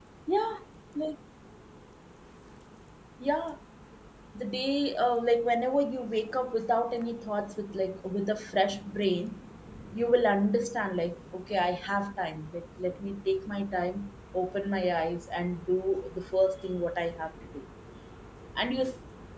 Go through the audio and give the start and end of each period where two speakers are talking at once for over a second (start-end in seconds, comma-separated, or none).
none